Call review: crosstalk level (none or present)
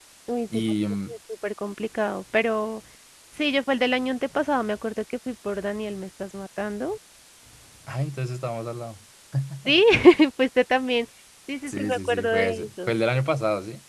present